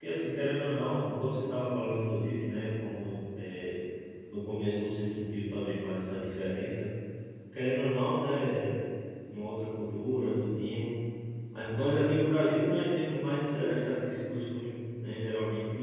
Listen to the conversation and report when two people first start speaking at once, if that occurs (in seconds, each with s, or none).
none